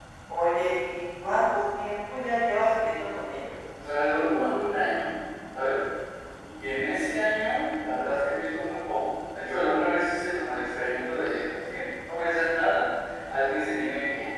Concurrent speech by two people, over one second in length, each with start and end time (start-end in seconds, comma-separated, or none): none